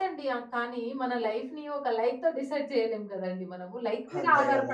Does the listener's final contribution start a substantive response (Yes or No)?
No